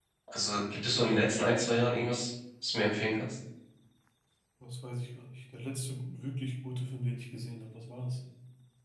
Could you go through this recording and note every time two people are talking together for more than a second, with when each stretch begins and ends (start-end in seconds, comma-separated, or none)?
none